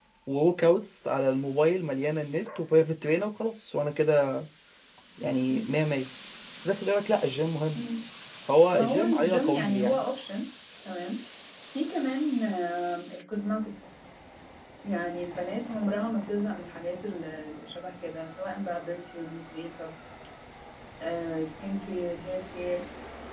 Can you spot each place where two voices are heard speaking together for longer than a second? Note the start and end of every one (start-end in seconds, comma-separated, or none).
8.7-10.0